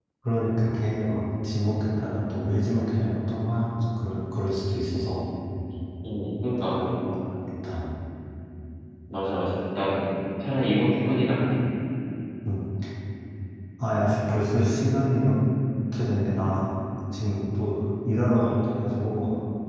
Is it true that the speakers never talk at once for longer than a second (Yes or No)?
Yes